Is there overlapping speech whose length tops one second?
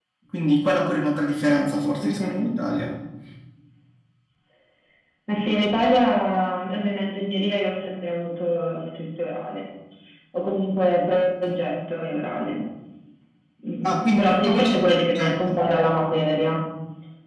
Yes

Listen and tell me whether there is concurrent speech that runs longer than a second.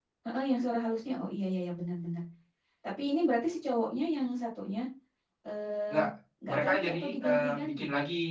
Yes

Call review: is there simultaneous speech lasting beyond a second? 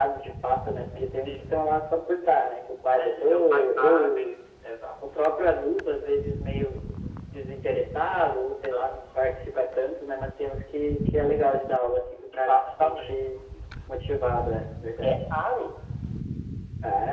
Yes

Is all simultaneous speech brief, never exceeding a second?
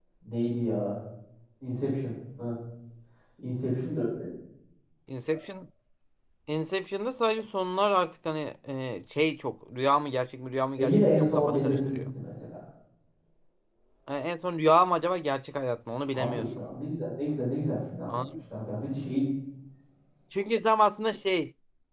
No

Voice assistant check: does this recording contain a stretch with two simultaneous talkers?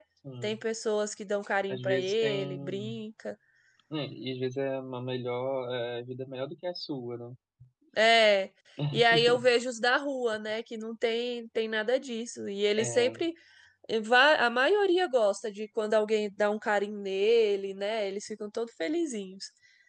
Yes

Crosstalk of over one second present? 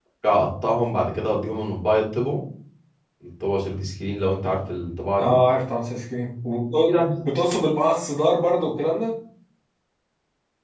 No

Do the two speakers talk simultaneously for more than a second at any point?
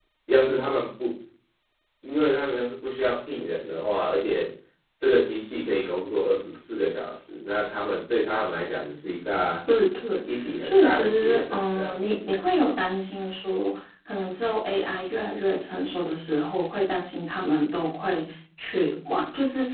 Yes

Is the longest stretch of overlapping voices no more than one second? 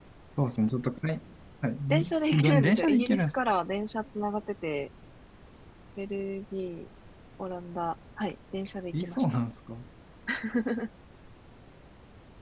No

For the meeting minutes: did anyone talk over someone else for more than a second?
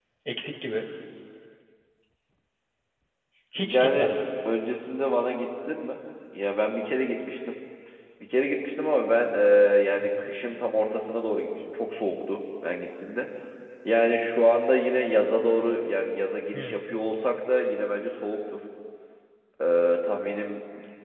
No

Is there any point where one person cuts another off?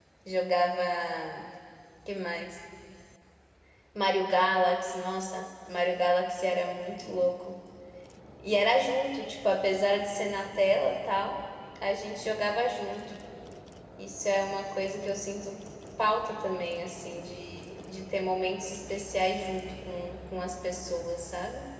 No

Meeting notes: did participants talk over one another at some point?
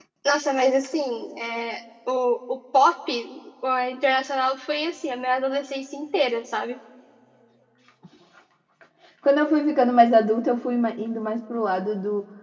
No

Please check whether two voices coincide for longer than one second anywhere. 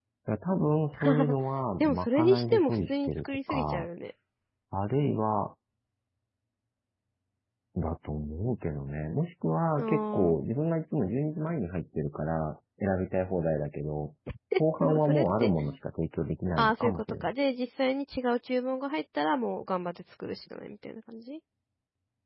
Yes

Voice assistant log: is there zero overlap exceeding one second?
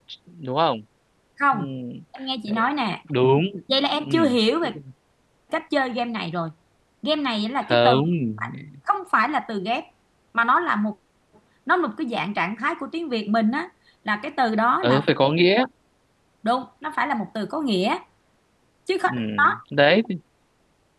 Yes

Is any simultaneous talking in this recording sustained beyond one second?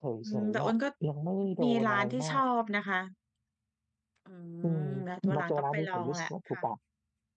Yes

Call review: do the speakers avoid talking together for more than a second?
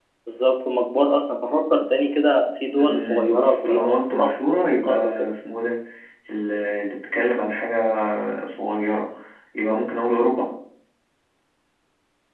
No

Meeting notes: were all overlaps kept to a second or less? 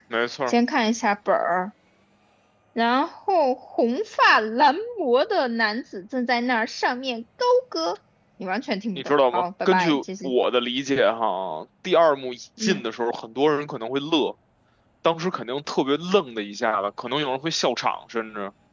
No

